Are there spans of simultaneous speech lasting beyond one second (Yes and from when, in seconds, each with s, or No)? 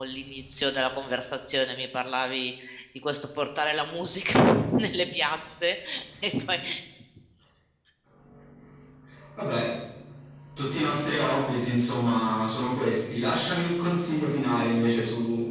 No